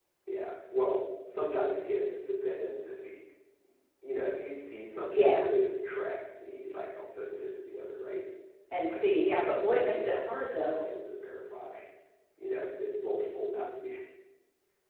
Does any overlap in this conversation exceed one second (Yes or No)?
Yes